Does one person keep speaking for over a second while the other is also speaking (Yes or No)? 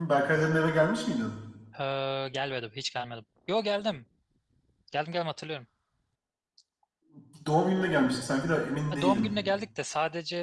No